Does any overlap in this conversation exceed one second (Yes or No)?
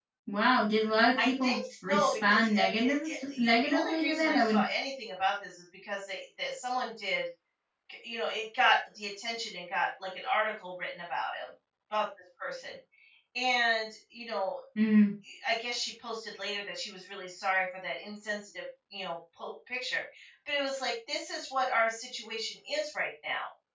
Yes